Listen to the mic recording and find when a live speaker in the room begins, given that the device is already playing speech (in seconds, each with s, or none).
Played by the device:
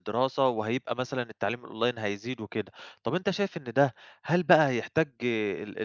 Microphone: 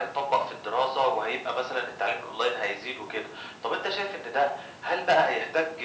none